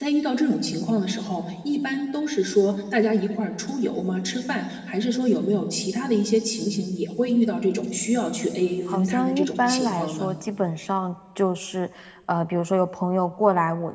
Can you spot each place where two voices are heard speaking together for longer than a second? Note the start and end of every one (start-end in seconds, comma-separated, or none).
8.9-10.3